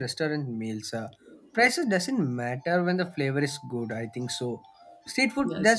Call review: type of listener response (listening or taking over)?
listening